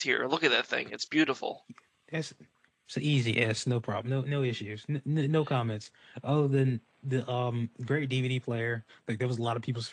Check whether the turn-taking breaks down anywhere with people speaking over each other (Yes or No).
No